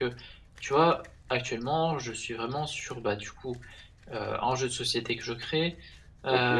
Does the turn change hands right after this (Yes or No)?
No